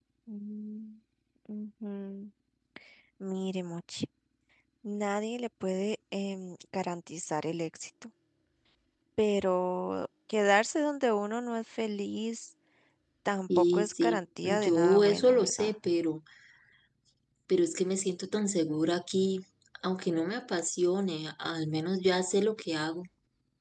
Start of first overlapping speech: 13.6 s

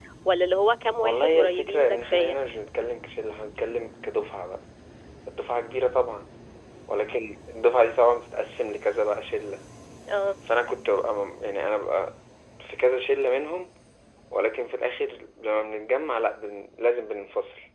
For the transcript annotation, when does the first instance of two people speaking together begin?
1.0 s

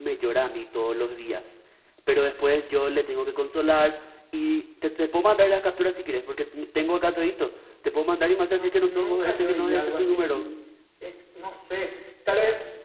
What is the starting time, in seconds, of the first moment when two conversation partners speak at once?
8.5 s

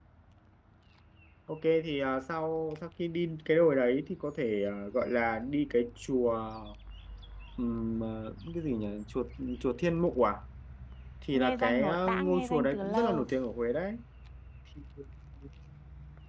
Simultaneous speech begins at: 11.3 s

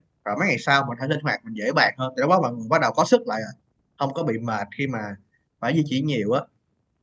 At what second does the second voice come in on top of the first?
none

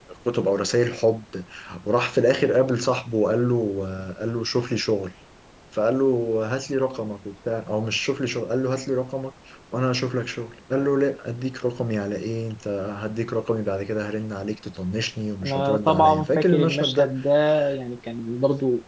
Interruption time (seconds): 15.4 s

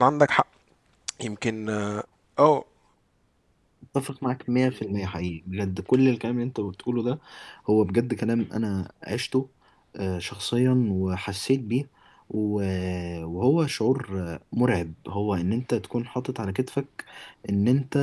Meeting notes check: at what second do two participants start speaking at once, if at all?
none

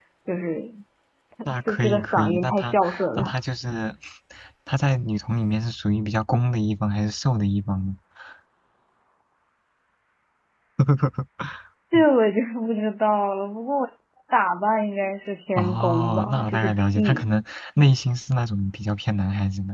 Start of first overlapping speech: 1.4 s

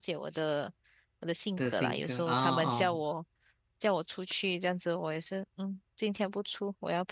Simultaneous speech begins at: 1.6 s

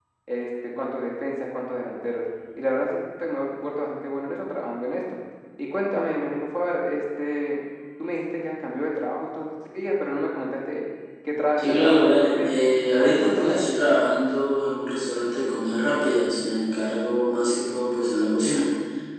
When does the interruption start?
11.6 s

